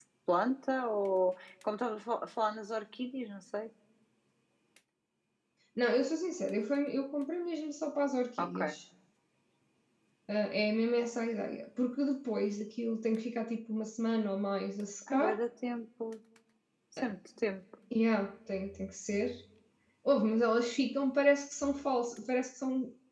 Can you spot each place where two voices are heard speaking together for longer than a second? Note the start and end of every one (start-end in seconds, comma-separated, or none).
none